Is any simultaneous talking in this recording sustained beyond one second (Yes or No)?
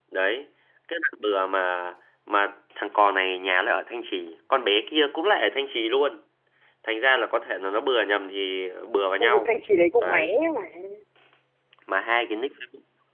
No